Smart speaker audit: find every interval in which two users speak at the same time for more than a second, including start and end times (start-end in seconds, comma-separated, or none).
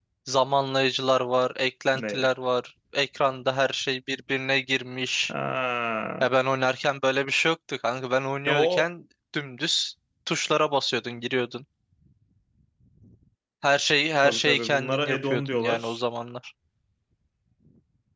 14.2-16.0